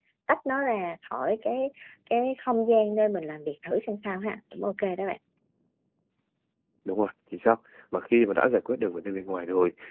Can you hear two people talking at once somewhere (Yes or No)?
No